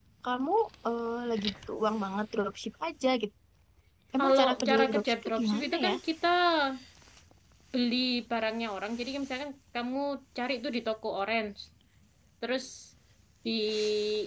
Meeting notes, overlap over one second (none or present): present